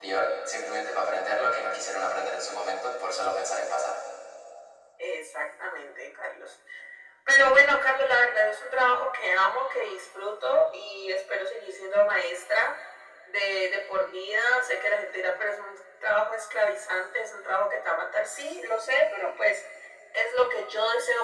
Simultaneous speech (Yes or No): No